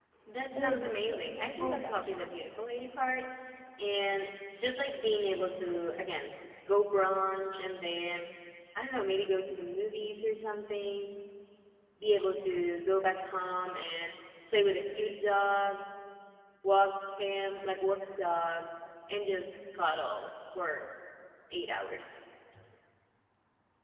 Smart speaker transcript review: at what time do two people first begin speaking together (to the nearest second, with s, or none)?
1 s